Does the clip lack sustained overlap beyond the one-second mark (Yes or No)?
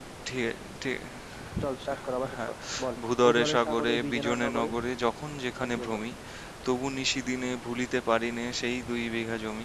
No